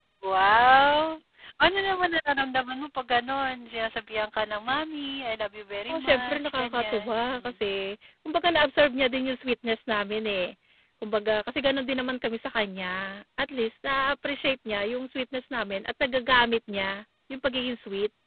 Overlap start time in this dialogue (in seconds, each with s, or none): 5.9 s